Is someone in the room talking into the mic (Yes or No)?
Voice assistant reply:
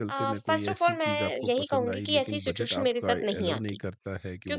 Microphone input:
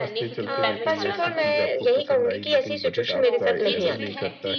Yes